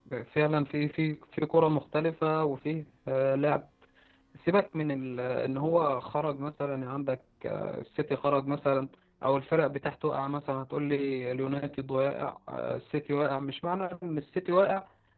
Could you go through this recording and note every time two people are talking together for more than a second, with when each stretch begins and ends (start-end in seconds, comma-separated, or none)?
none